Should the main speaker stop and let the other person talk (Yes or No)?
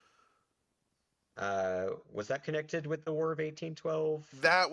Yes